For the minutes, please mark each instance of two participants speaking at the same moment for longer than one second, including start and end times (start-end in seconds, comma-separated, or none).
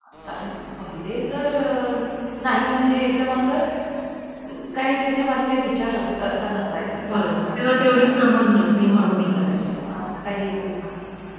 7.1-9.8